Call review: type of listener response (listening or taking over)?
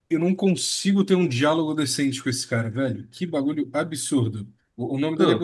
listening